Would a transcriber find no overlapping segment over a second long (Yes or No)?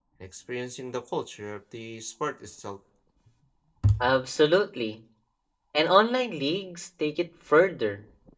Yes